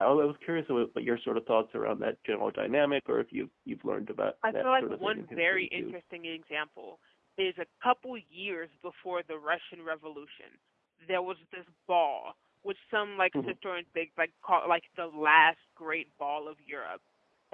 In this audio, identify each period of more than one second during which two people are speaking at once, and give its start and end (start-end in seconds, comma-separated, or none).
4.5-5.9